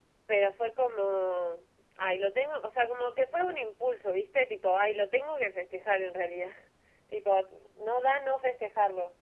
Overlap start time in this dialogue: none

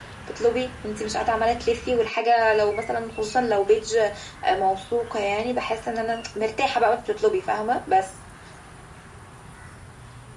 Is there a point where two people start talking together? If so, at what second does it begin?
none

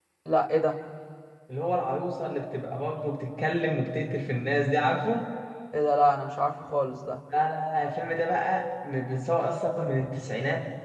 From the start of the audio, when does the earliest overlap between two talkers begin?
none

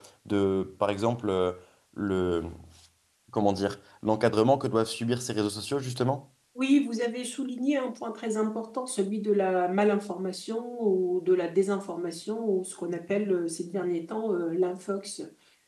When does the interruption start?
none

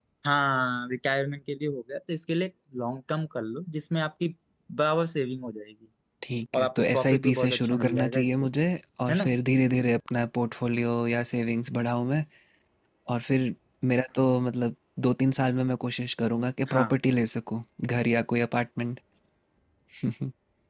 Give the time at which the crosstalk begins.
7 s

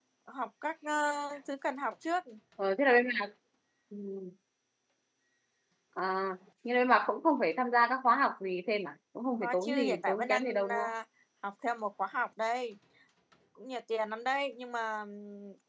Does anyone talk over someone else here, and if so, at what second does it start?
9 s

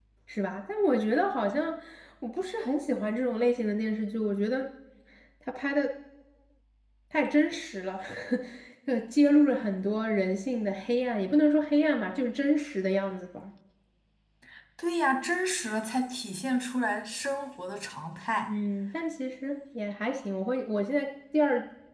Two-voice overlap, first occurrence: none

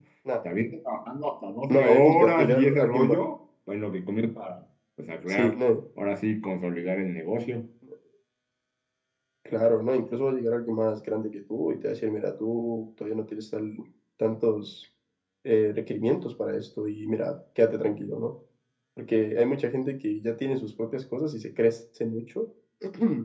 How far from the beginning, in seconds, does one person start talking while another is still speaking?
2 s

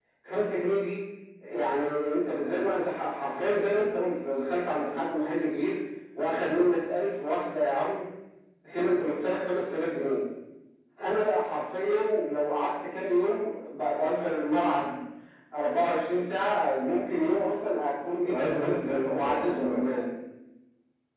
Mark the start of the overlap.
18 s

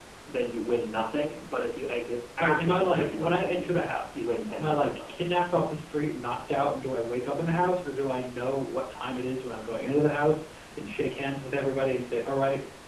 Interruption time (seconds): 2 s

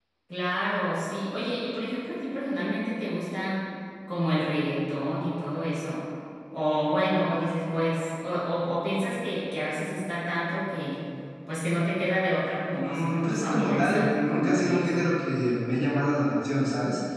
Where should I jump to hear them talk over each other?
13 s

